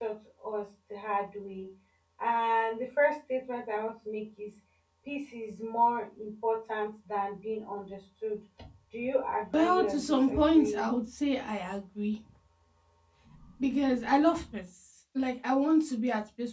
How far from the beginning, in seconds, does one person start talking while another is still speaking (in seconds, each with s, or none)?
9.5 s